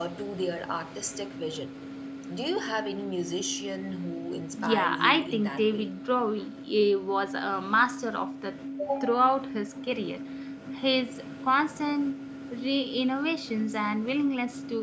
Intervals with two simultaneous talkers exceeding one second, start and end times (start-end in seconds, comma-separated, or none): 4.6-5.9